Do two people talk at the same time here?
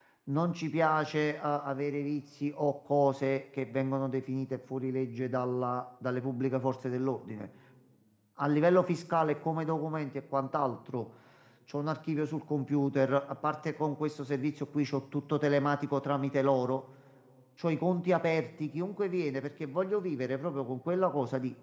No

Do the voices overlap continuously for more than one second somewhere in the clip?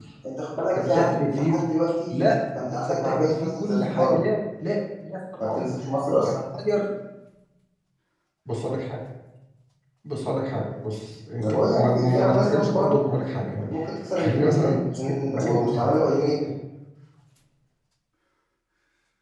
Yes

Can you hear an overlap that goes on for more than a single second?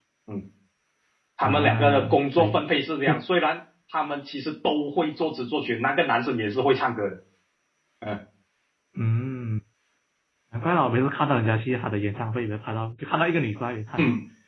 Yes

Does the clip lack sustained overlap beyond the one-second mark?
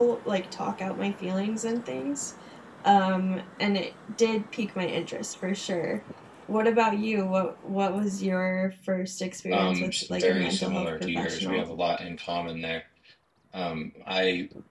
No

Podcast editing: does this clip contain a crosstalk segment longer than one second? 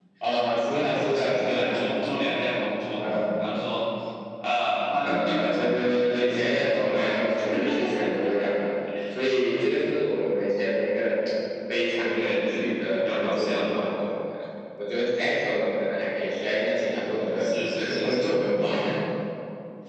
Yes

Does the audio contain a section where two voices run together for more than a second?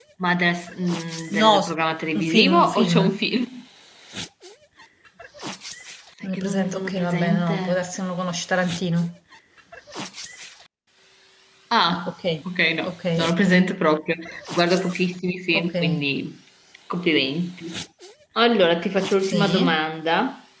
Yes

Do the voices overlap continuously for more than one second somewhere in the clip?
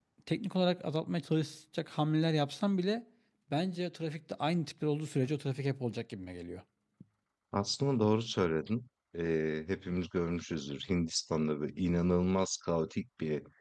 No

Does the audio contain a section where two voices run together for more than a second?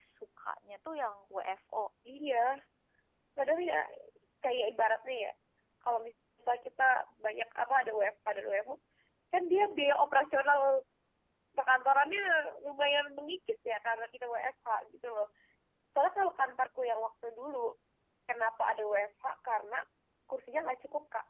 No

